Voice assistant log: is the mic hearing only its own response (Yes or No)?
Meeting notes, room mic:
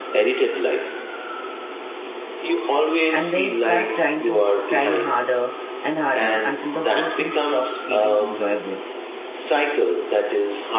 No